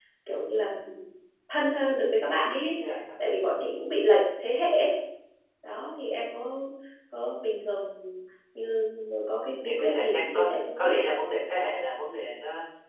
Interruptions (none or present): present